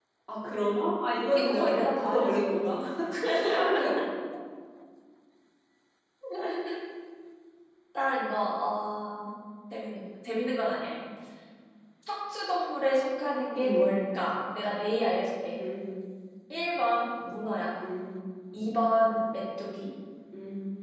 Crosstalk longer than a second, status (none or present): present